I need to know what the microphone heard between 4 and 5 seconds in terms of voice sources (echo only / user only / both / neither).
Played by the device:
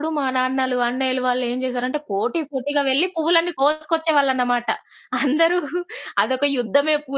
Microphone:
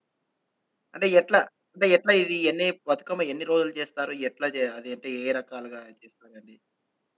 user only